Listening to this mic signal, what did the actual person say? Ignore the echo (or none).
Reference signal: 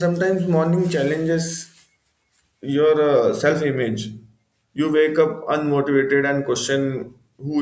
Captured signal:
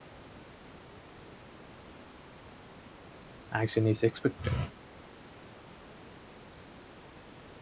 action is expected